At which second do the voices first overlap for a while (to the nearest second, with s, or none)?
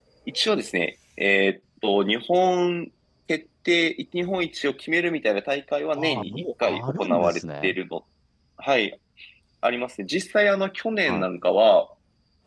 6 s